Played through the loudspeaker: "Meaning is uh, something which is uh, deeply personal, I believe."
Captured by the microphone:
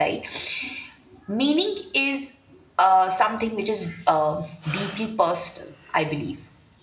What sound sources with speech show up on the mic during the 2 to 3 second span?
echo only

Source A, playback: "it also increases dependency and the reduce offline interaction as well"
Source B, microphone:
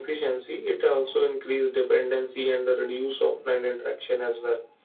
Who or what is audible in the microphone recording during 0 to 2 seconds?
echo only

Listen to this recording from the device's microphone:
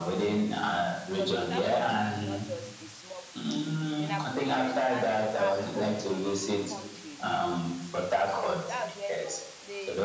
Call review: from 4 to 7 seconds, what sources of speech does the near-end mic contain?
both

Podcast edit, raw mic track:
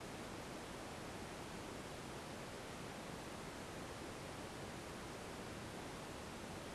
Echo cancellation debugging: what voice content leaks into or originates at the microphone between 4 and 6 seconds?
neither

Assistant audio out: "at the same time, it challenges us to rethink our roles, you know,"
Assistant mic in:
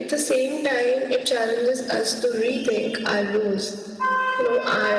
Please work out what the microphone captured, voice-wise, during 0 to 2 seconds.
echo only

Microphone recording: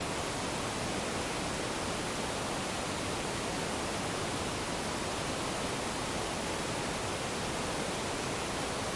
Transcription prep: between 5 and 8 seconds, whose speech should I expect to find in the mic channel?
neither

